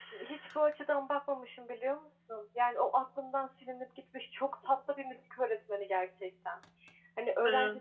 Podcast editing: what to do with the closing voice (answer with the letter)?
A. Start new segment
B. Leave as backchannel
B